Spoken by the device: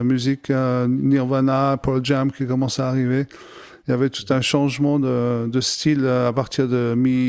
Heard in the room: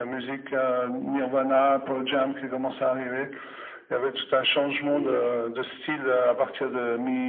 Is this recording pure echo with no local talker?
No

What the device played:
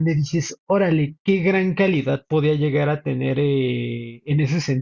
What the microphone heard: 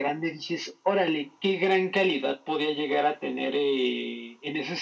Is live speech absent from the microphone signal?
Yes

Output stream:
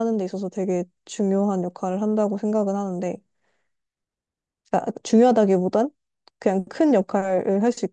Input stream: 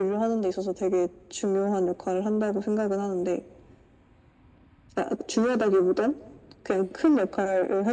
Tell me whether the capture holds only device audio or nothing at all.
Yes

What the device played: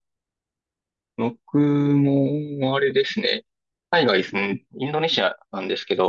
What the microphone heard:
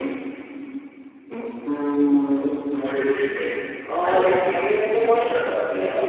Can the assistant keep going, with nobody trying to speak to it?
No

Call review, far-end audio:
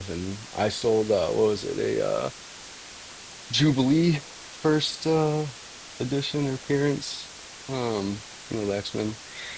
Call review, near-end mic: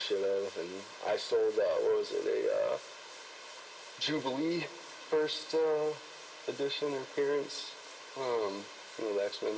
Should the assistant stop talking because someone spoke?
No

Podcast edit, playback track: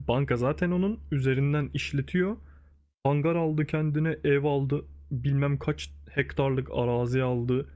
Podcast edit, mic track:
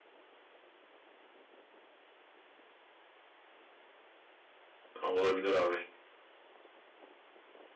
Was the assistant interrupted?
Yes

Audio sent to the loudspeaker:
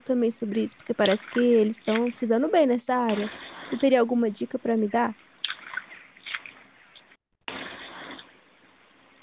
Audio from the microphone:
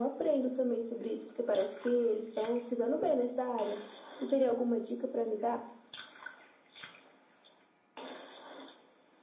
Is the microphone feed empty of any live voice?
Yes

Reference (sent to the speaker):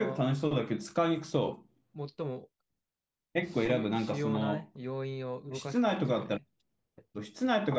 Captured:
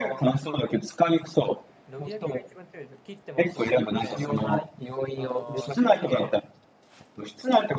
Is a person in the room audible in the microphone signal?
Yes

